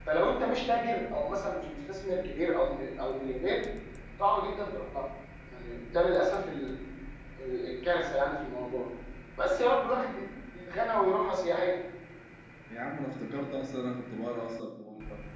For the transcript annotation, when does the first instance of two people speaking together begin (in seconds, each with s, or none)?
none